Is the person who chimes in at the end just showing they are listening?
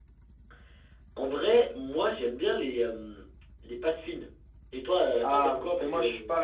No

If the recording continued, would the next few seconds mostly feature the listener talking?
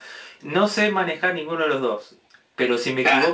No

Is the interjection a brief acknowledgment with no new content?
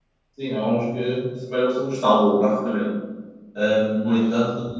Yes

